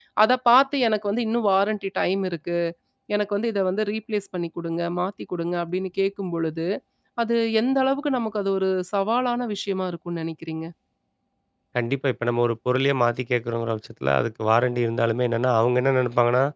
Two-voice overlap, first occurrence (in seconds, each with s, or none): none